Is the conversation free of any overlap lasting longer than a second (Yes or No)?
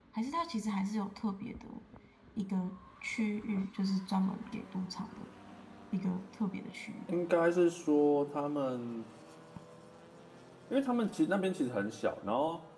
Yes